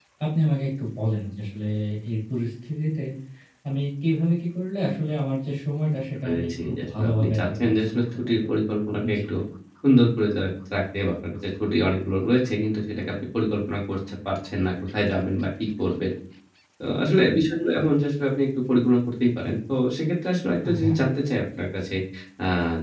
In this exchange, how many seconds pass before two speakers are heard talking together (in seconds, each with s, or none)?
6.2 s